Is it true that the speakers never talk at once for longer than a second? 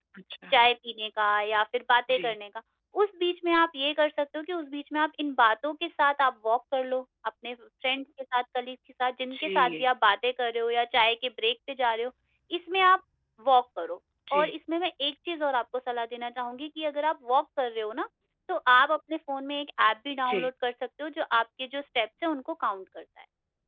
Yes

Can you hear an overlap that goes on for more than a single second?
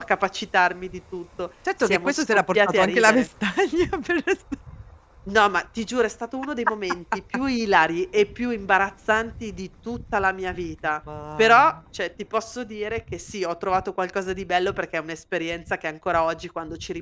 Yes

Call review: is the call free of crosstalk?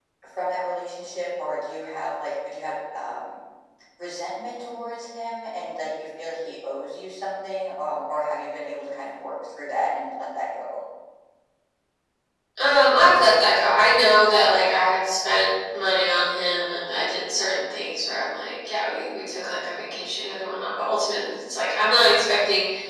Yes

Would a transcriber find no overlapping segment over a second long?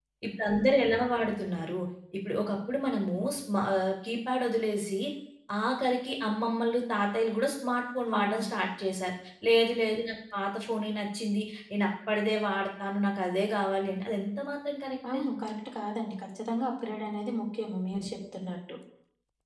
Yes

